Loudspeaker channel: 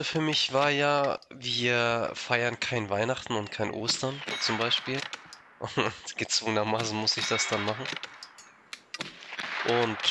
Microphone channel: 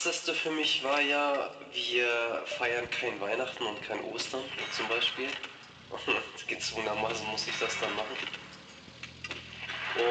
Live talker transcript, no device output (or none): none